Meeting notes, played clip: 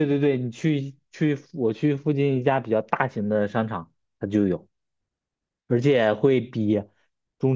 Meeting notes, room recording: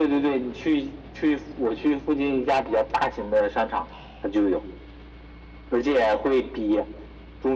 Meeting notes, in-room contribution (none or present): none